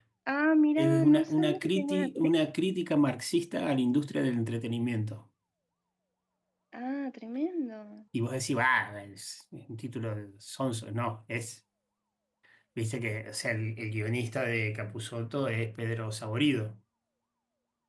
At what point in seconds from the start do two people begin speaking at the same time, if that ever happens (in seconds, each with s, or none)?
0.8 s